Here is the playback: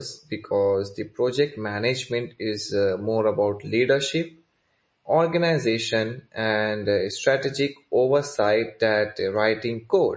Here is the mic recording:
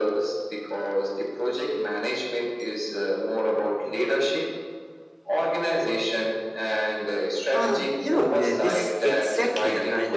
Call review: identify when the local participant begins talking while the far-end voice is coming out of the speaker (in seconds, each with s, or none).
7.5 s